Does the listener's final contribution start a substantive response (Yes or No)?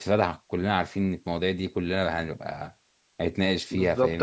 Yes